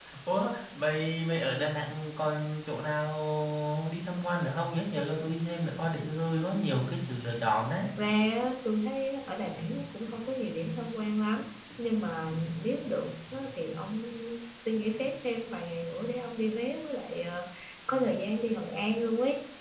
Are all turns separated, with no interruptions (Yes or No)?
Yes